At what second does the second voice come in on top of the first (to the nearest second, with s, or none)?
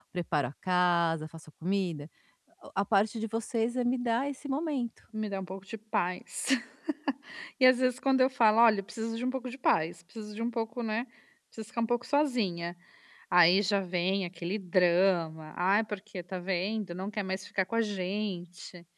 none